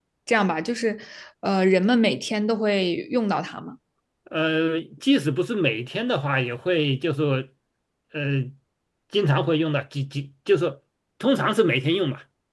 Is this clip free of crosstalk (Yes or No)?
Yes